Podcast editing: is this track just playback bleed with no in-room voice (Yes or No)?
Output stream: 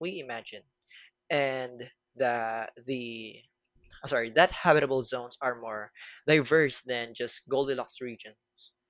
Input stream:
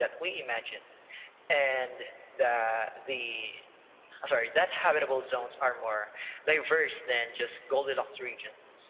Yes